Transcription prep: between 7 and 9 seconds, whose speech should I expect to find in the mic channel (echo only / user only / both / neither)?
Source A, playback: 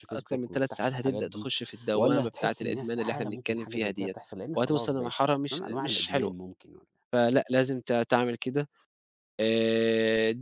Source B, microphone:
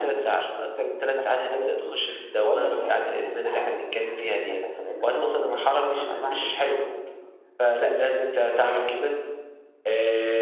echo only